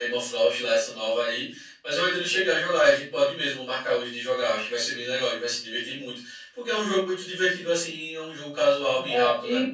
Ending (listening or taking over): taking over